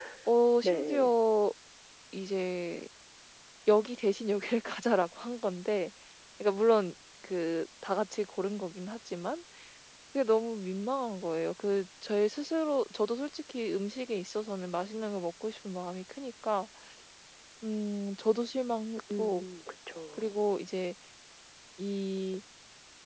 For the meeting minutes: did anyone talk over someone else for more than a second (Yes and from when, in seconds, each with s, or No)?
No